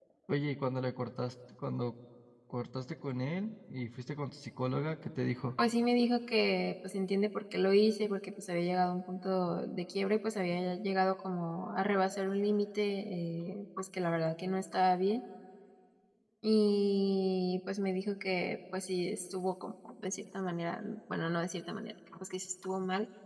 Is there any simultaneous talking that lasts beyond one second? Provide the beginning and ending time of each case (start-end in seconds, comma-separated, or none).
none